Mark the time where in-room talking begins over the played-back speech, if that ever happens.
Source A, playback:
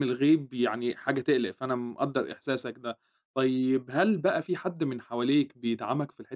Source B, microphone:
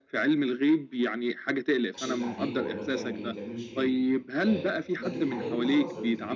1.9 s

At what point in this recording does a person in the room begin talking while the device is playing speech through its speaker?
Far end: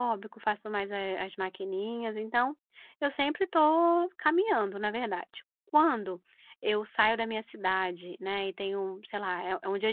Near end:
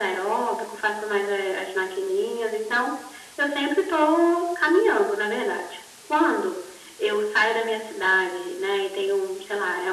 none

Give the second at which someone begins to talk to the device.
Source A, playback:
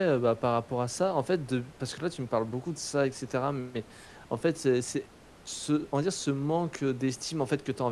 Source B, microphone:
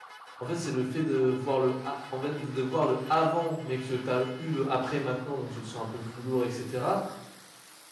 0.4 s

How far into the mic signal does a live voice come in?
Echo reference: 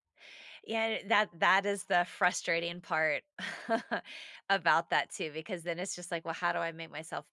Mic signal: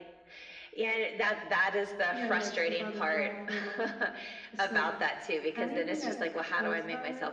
2.1 s

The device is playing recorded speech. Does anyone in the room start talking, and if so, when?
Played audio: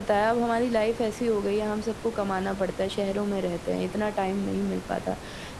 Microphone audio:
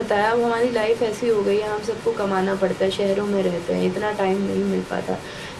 none

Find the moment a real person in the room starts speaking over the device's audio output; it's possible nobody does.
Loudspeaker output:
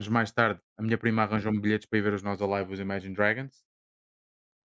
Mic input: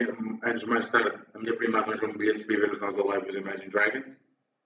none

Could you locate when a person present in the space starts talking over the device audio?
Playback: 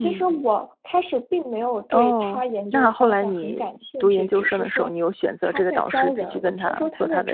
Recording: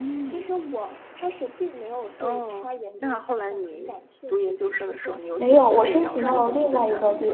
5.4 s

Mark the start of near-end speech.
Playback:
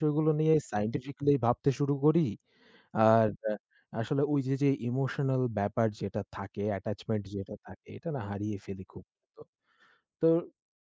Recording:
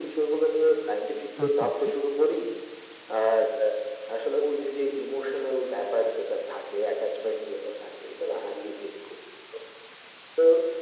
1.4 s

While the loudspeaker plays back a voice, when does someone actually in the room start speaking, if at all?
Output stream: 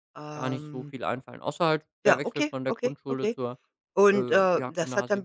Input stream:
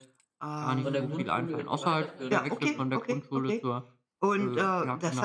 0.8 s

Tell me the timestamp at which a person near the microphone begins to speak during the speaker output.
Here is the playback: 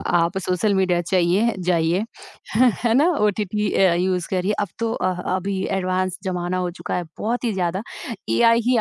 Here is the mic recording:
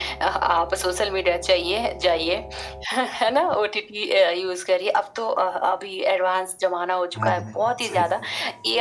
7.2 s

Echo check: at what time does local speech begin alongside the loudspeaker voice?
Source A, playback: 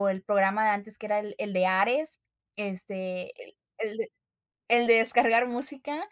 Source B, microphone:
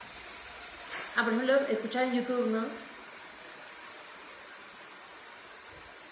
1.1 s

